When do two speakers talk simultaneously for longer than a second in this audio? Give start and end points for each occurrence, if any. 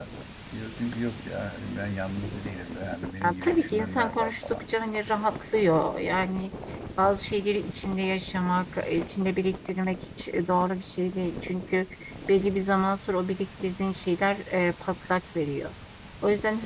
3.2-4.6

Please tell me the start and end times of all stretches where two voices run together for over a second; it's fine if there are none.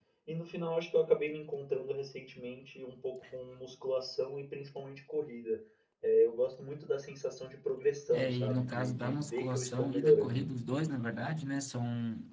8.1-10.5

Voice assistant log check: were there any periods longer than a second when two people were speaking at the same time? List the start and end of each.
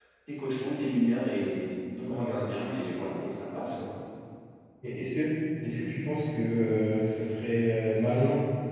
none

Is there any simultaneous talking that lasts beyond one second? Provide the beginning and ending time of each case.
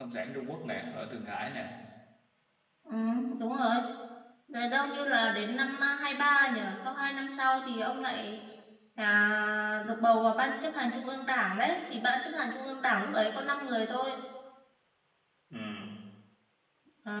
none

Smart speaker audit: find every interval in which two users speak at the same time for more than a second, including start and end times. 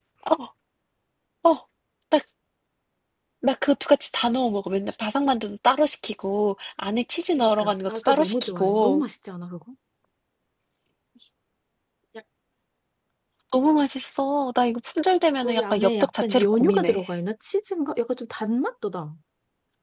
7.4-9.0, 15.4-17.0

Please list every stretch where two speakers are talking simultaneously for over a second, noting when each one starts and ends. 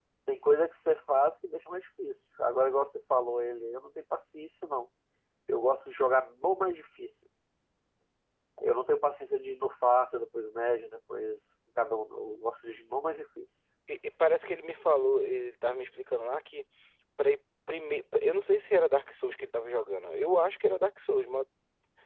none

